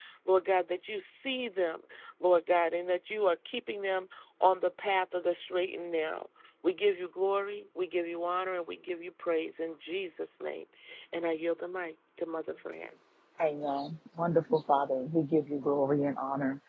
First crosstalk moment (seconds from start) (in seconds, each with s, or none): none